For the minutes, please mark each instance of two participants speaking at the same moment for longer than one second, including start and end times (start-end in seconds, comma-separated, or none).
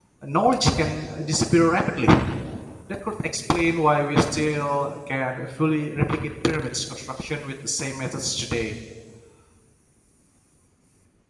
none